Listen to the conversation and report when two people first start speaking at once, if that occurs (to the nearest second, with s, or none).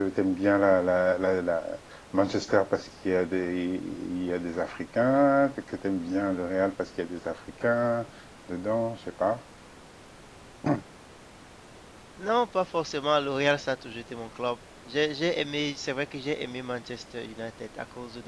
none